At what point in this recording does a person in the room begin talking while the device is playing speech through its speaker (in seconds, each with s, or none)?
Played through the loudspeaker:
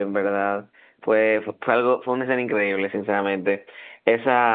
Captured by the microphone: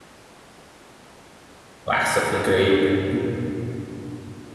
1.8 s